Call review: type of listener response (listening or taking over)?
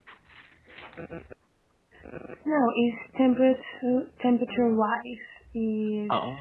listening